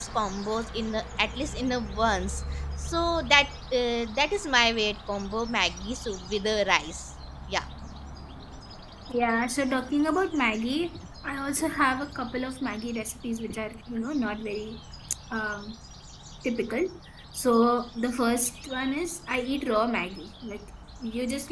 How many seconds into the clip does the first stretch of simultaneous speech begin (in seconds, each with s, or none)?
none